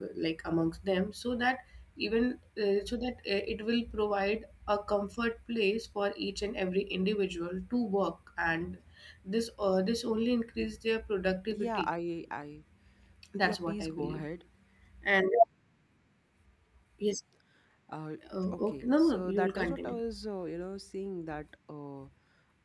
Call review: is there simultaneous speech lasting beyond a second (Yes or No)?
Yes